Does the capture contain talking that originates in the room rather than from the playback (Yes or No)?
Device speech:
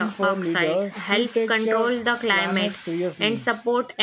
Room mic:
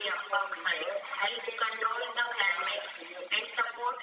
No